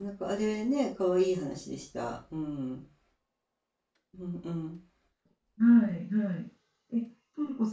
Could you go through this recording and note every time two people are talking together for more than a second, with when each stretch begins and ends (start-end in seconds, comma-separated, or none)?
none